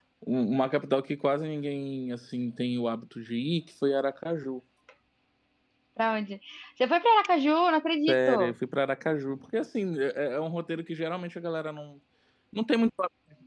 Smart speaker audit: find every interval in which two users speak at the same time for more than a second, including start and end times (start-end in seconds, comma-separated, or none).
none